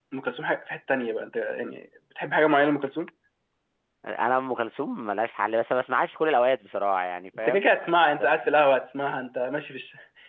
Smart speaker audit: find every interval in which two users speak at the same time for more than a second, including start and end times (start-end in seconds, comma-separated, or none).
none